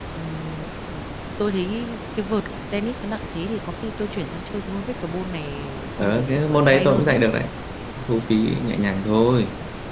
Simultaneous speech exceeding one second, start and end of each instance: 6.0-7.2

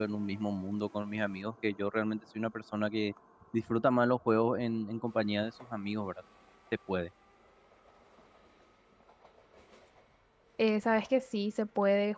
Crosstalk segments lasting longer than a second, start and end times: none

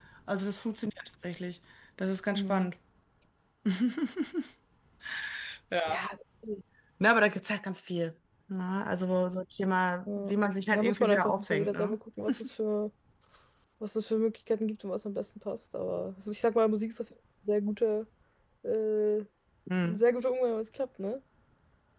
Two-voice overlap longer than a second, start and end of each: 10.7-12.0

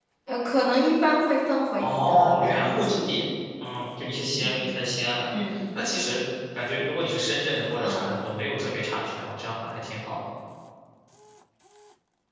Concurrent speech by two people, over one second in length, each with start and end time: 1.8-3.1

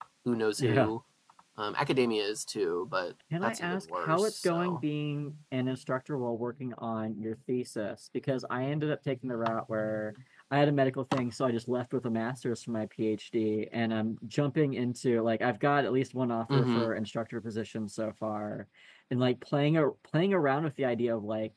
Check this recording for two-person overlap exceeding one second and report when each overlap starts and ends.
3.4-4.8

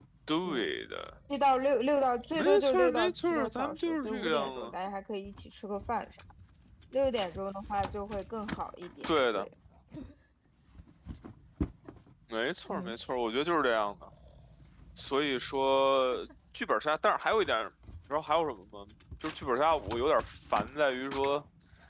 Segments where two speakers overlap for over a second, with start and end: 2.4-4.7

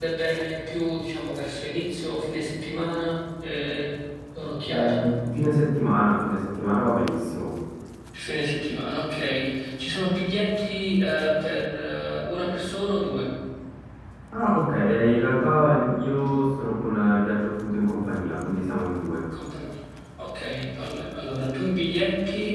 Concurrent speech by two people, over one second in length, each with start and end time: none

